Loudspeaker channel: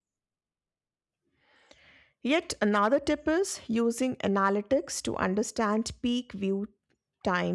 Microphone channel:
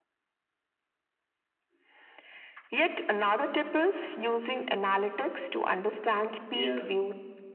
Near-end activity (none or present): present